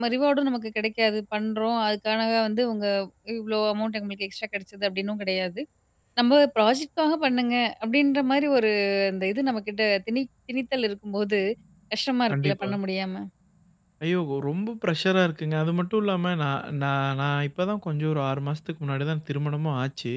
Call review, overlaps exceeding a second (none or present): none